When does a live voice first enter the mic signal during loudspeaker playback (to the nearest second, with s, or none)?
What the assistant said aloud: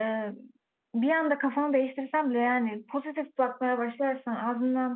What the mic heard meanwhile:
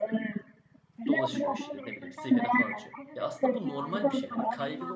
1 s